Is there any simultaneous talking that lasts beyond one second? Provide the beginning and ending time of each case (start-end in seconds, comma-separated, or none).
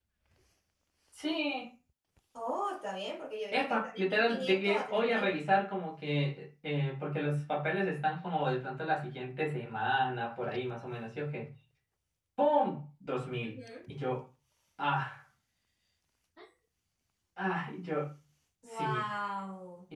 3.5-5.4